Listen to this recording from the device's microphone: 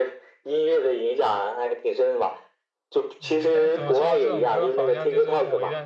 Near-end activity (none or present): present